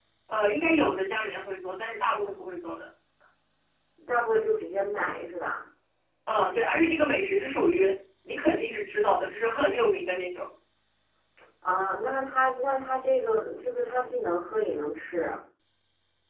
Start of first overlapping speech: none

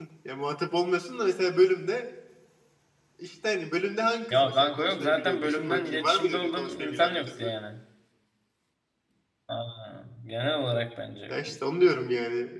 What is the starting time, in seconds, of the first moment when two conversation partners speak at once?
4.3 s

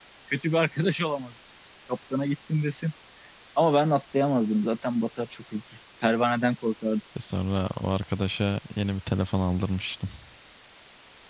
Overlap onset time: none

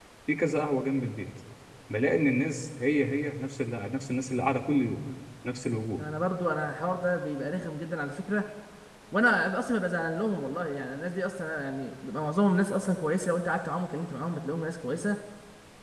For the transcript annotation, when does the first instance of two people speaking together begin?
none

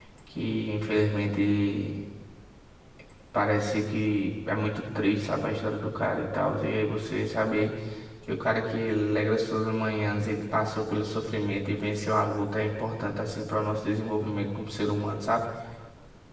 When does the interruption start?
none

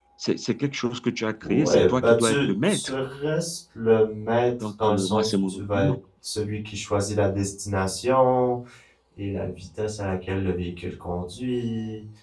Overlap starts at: 1.4 s

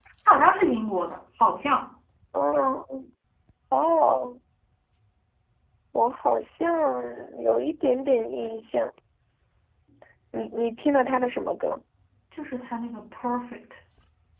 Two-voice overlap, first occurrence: none

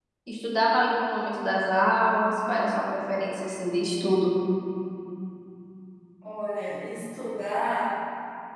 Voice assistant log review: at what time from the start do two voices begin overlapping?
none

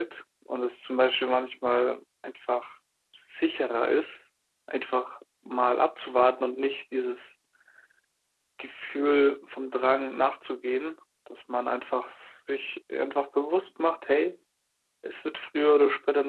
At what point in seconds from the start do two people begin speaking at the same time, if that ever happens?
none

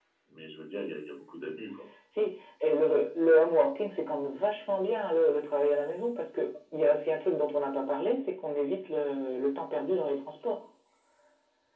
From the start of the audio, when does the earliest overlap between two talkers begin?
none

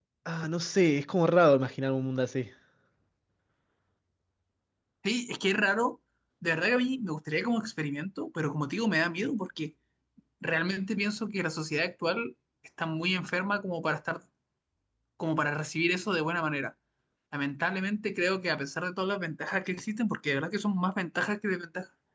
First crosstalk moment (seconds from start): none

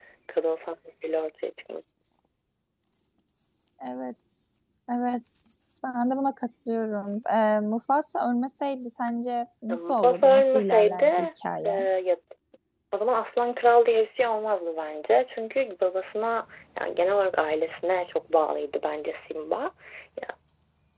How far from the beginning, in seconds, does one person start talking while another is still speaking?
9.7 s

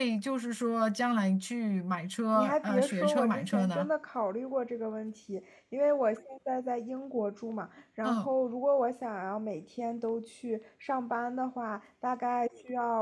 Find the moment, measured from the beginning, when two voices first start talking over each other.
2.4 s

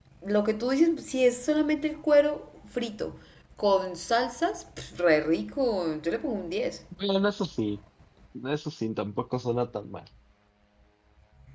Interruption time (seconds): none

